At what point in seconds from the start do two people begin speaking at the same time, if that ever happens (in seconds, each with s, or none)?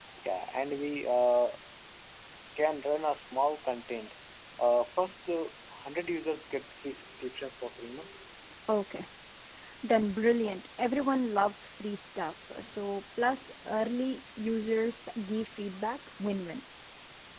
none